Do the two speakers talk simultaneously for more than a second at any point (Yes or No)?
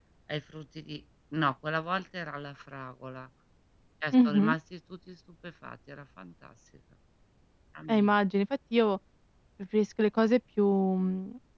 No